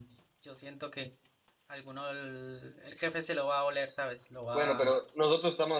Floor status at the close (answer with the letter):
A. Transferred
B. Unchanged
A